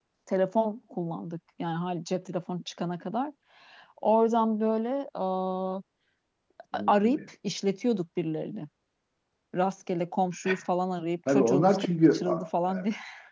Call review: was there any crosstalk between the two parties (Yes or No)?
Yes